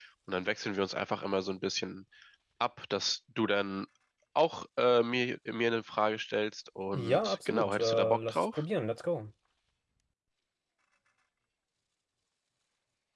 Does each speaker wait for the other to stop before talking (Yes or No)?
No